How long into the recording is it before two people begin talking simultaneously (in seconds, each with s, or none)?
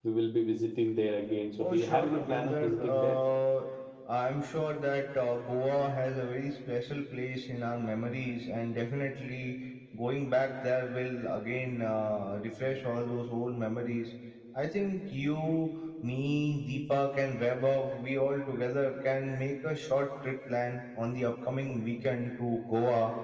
1.6 s